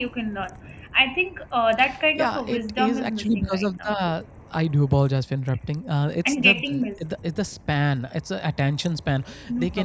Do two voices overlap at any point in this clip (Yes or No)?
Yes